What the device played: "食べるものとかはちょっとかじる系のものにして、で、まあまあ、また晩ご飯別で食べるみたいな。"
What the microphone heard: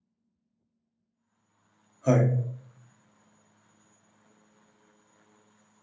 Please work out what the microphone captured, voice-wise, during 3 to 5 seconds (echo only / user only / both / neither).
neither